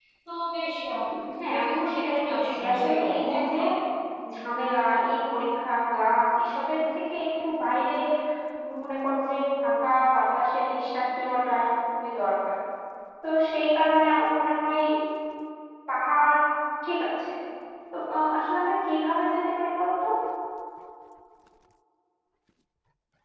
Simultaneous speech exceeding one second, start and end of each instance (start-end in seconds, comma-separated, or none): 1.5-3.6